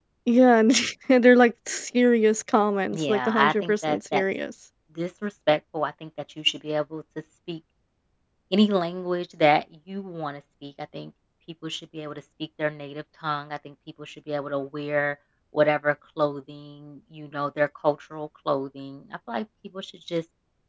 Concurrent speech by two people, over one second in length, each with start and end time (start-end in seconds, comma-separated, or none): 2.9-4.2